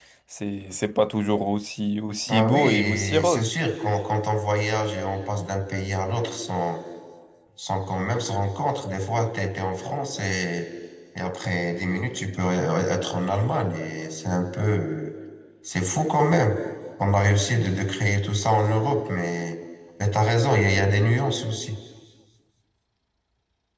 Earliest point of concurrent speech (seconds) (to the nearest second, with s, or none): 2 s